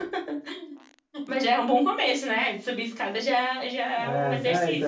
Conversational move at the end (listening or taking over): taking over